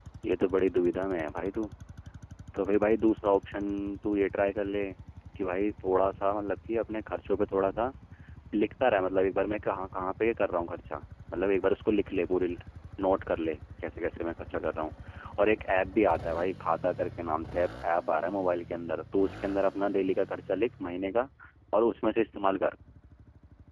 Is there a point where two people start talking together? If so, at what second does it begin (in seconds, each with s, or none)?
none